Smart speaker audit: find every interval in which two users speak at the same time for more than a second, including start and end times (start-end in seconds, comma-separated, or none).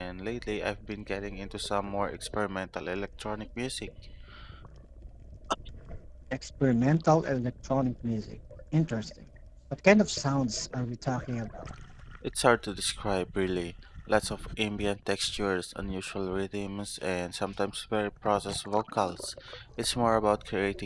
none